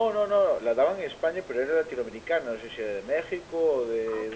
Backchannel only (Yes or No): Yes